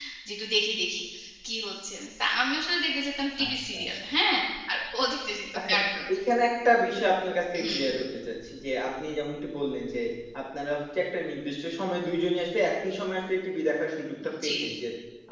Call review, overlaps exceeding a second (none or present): none